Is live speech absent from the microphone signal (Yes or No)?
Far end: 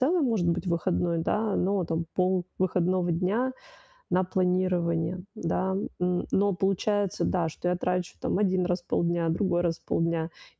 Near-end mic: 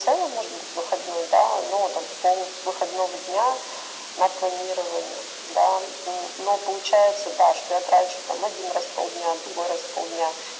Yes